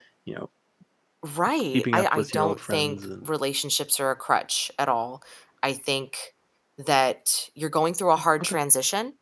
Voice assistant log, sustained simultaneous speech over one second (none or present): present